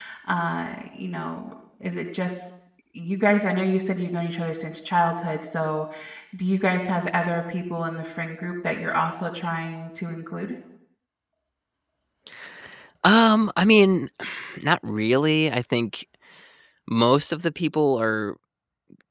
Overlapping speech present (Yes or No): No